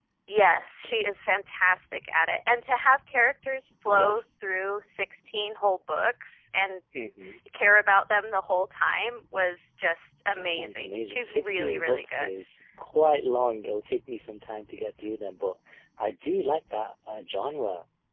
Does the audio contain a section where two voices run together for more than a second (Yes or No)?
Yes